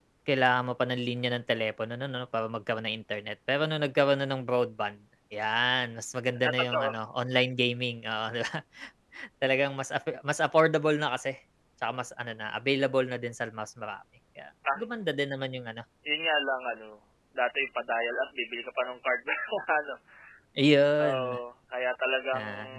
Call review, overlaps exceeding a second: none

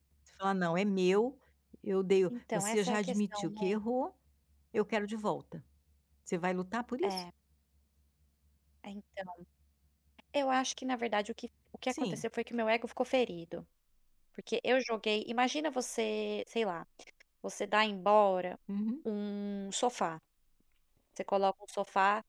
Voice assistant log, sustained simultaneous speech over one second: present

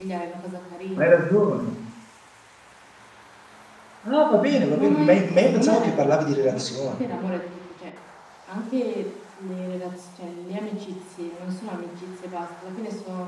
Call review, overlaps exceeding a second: present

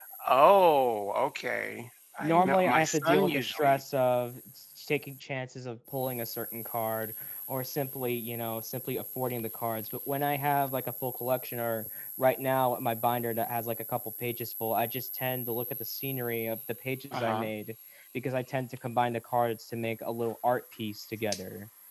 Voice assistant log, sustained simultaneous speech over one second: present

